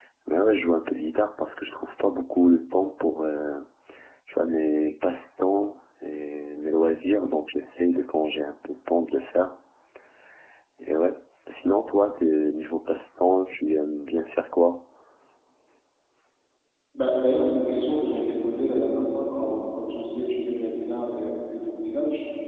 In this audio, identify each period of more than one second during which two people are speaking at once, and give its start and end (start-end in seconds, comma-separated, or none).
none